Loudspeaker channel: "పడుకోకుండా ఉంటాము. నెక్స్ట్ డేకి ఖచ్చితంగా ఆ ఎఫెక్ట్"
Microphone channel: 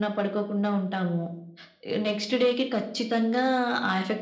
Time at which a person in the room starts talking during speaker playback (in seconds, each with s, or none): none